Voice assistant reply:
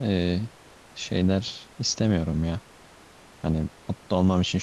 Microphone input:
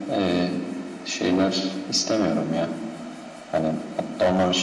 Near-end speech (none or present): none